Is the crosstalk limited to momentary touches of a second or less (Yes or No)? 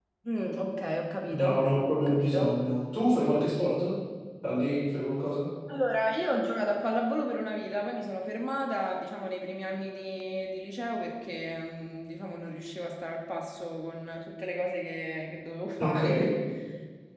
Yes